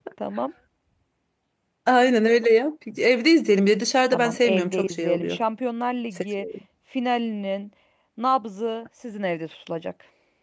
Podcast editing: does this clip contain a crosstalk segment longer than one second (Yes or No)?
Yes